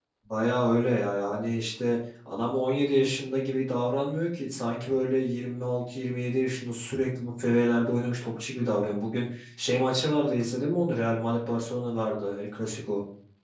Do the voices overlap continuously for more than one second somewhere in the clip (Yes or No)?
No